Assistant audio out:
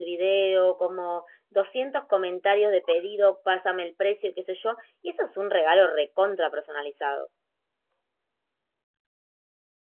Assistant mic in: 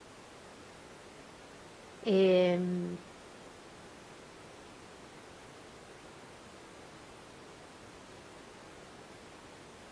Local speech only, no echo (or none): Em,